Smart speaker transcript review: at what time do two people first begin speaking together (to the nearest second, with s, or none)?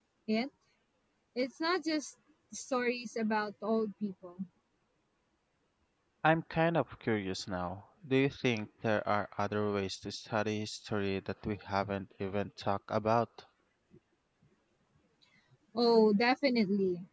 none